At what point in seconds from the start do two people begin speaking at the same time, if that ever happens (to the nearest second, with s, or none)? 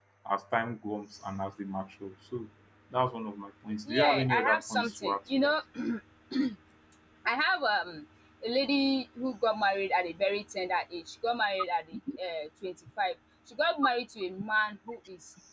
4 s